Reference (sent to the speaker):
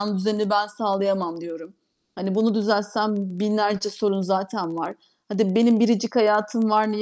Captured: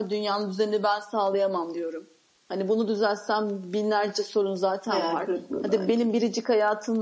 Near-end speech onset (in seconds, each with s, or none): 4.8 s